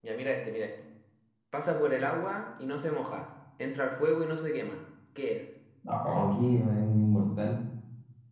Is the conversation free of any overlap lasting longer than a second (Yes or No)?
Yes